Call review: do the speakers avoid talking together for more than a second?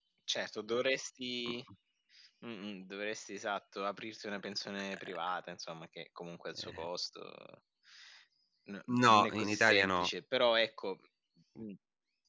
No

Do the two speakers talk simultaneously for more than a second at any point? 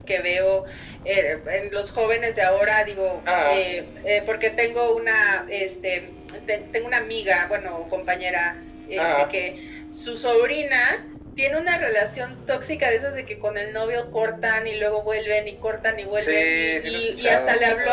Yes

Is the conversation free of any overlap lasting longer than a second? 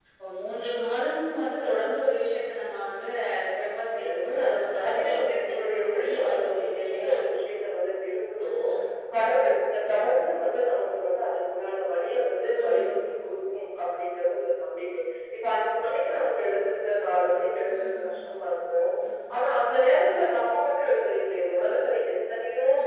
No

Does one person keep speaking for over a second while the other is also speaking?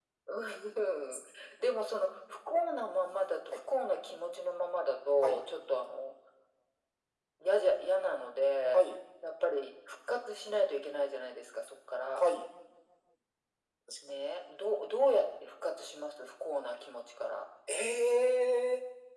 No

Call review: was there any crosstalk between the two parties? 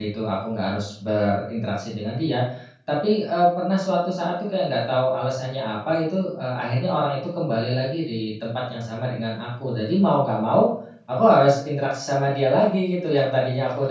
No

